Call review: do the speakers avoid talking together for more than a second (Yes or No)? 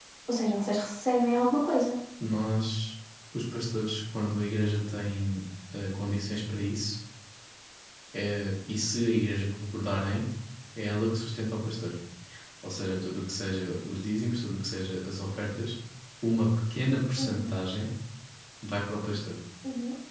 Yes